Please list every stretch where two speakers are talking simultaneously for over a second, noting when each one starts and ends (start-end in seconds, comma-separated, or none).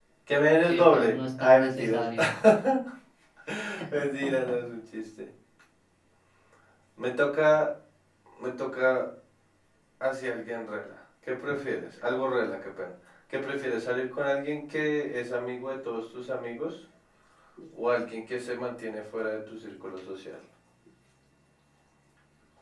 0.6-2.0